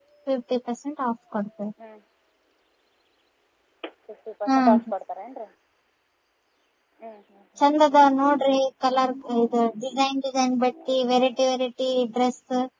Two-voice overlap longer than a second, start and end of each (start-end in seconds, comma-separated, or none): none